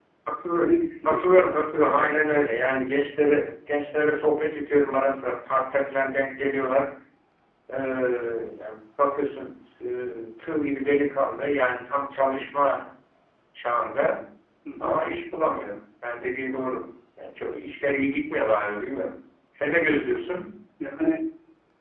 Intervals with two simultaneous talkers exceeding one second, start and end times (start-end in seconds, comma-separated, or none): 0.6-2.1